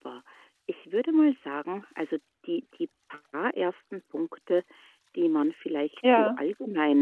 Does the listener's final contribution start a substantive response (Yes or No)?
No